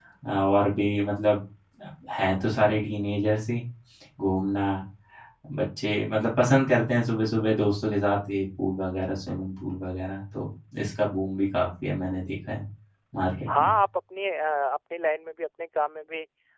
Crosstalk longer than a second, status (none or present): none